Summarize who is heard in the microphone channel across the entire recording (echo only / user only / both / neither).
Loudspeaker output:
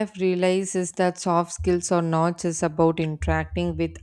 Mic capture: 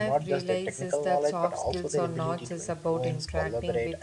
both